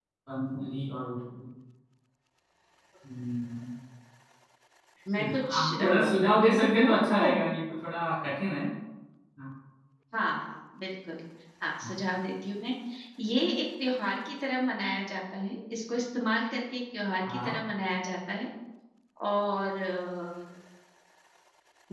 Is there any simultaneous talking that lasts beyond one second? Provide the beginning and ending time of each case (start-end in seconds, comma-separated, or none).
5.2-7.3